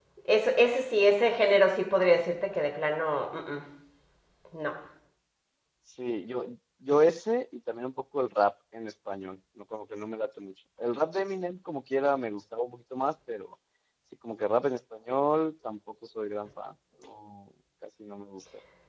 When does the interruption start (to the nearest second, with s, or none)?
none